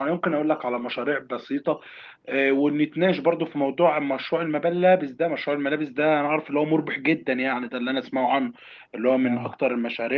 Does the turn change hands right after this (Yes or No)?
No